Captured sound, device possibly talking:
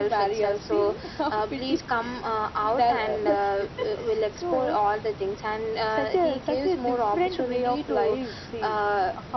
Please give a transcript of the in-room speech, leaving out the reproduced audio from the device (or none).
none